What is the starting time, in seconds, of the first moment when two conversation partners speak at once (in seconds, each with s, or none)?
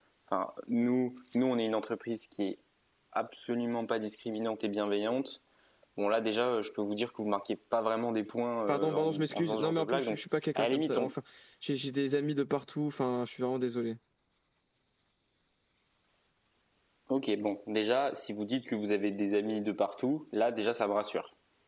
8.7 s